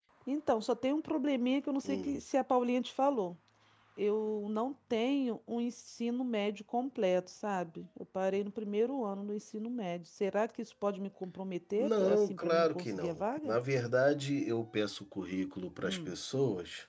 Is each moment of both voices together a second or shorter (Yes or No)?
No